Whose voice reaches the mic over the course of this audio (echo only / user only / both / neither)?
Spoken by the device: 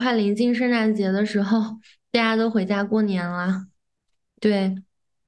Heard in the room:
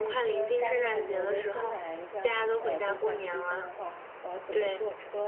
both